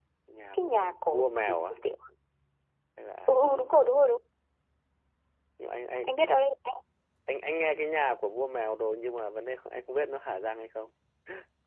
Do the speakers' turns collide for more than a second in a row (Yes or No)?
Yes